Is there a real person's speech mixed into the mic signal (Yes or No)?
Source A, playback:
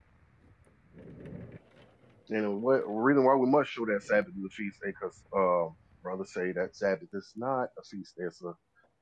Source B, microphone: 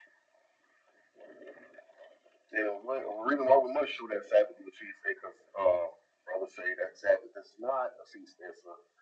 No